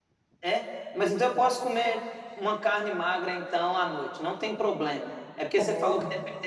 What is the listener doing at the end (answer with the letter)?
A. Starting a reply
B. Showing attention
B